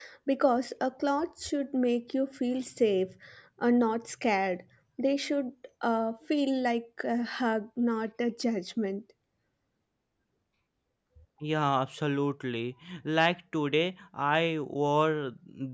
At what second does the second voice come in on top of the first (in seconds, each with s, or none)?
none